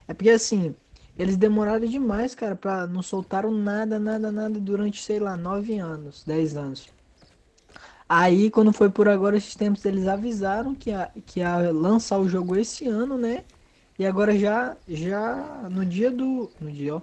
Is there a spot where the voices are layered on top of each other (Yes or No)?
No